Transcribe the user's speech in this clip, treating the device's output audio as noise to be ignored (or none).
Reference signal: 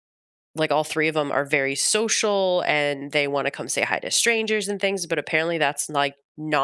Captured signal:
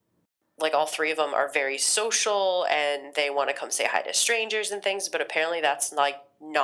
none